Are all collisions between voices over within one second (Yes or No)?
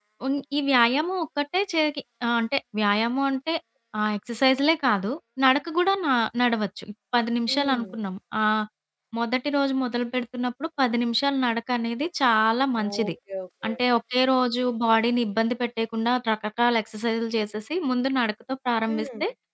Yes